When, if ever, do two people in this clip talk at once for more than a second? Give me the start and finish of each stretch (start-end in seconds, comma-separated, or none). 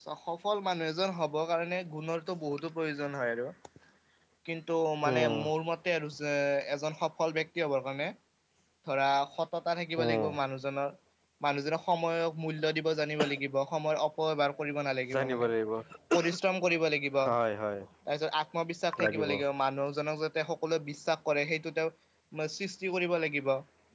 none